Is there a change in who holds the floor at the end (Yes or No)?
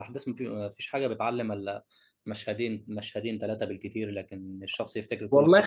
Yes